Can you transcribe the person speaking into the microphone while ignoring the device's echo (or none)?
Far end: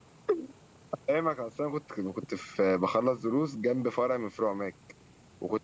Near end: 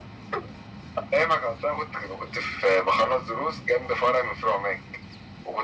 none